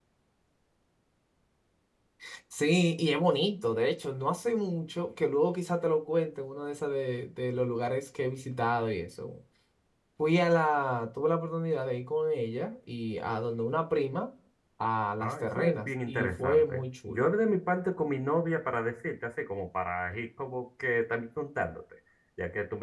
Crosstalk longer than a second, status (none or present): present